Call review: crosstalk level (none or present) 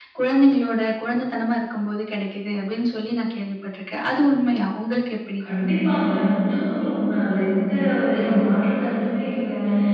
none